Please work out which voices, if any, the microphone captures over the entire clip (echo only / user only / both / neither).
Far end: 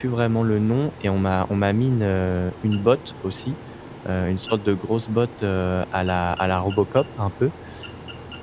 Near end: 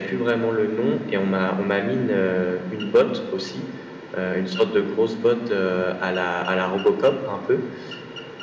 echo only